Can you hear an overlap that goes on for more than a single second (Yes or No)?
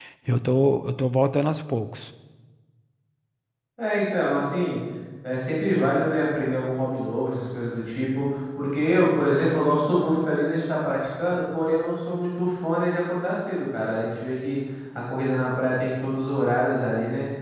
No